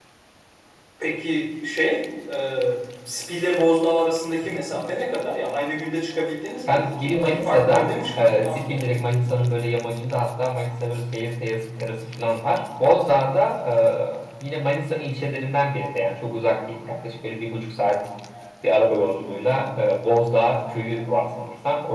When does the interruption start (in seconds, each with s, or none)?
6.7 s